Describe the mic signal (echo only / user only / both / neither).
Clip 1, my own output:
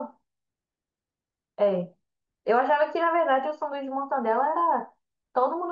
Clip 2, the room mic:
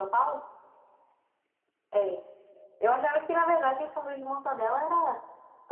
echo only